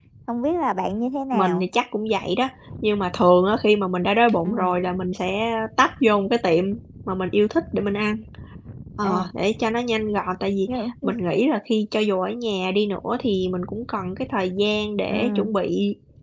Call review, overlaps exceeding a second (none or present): none